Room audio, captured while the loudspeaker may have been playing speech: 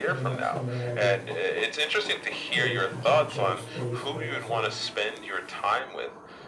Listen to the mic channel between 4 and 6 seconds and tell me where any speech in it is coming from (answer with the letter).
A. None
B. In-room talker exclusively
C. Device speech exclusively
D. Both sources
D